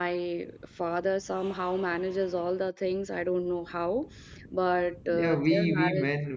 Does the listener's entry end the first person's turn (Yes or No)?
Yes